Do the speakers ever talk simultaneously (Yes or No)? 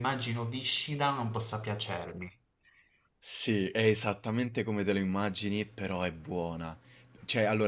No